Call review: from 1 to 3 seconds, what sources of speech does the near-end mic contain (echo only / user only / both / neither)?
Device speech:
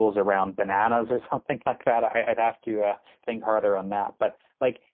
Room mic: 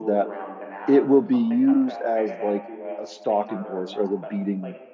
both